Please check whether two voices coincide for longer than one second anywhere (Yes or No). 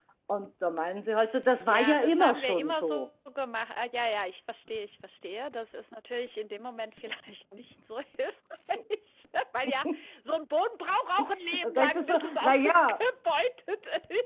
Yes